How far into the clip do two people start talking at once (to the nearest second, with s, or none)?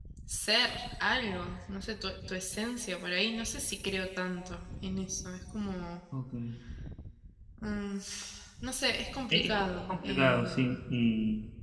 9 s